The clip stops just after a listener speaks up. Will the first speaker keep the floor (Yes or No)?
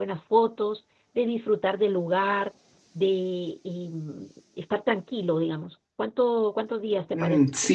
No